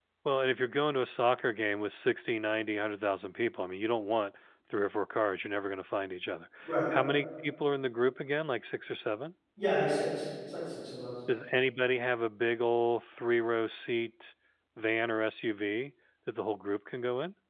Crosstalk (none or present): none